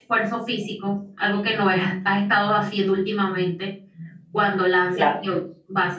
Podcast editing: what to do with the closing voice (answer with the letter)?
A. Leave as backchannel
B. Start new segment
A